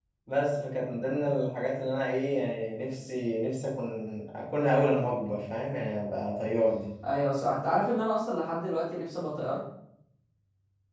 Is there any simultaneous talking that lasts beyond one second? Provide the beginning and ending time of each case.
none

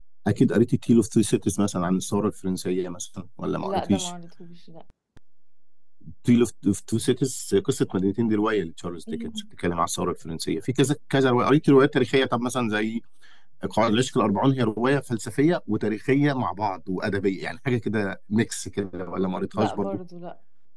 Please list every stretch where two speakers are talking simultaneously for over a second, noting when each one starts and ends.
none

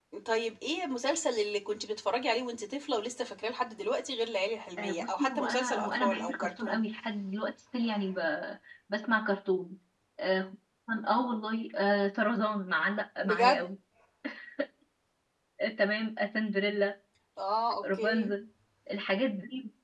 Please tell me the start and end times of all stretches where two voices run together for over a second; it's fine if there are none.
4.8-6.8

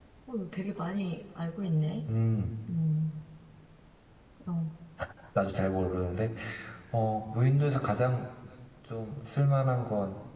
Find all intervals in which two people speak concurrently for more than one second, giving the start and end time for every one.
none

